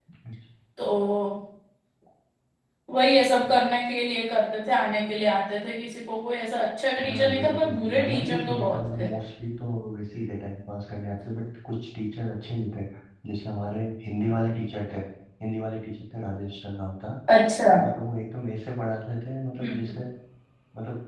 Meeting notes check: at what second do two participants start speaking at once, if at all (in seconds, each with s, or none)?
7.0 s